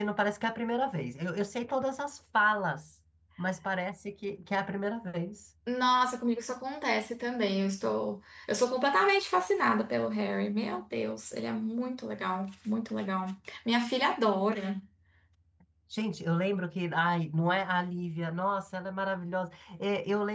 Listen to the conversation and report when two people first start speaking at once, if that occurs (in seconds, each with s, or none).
none